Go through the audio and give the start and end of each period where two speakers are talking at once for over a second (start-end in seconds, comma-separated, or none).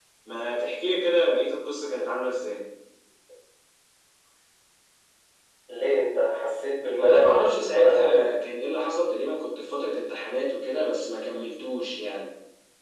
6.9-8.3